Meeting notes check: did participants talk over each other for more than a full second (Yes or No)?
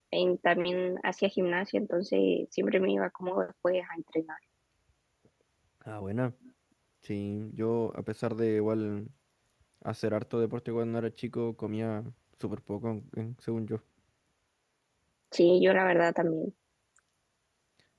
No